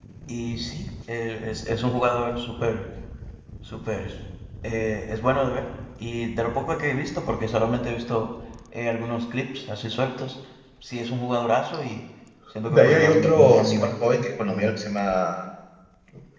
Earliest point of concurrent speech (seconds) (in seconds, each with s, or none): 12.6 s